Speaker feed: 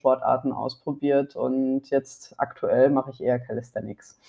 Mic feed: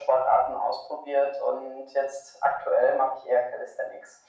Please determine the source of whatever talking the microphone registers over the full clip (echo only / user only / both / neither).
echo only